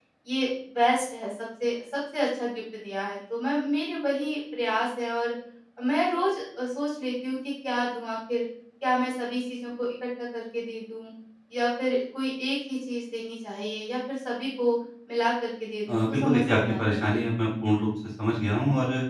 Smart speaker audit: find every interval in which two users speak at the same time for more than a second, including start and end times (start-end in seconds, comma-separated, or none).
15.9-17.2